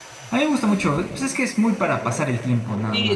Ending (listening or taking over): taking over